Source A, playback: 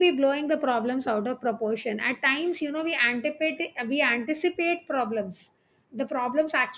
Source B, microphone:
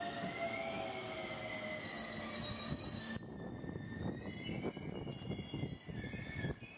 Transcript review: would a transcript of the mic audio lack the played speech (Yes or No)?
Yes